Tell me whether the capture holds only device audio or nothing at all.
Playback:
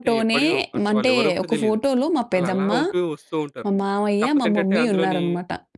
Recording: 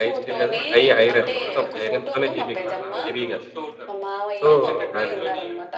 No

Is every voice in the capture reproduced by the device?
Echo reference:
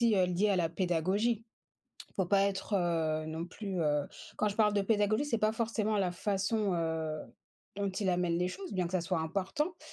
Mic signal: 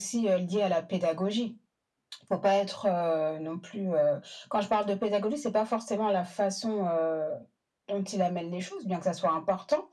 Yes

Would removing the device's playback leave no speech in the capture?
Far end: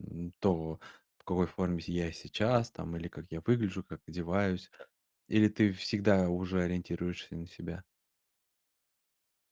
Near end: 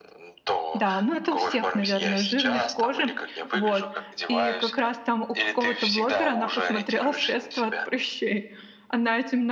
No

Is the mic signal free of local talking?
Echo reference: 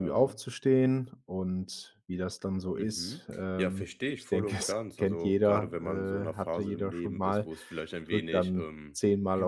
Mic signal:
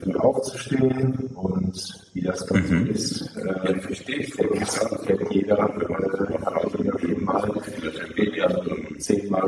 No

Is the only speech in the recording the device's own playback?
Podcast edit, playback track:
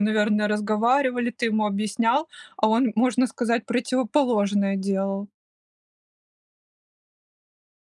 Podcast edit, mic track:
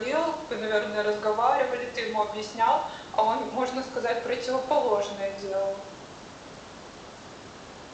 Yes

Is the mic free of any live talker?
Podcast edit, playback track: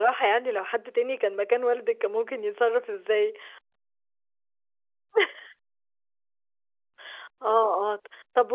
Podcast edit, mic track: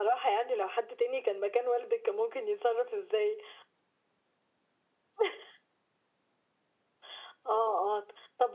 Yes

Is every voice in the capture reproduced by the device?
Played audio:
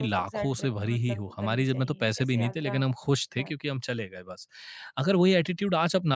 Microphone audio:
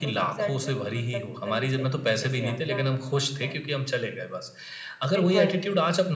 No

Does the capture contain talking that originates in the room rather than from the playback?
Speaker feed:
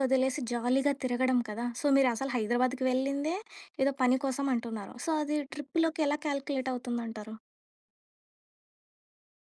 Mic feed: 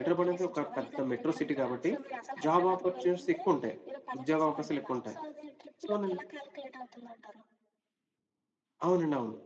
Yes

